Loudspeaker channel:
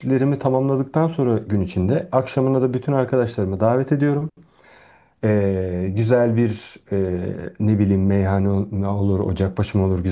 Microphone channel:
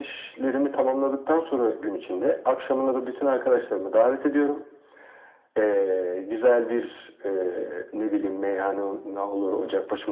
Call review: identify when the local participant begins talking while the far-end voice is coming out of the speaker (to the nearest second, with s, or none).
none